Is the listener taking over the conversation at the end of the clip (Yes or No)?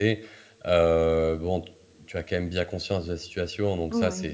No